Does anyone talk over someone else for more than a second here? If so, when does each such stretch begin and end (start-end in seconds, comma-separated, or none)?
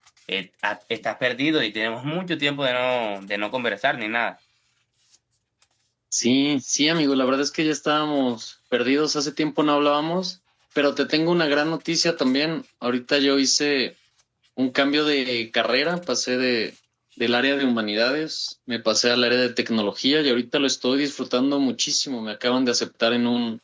none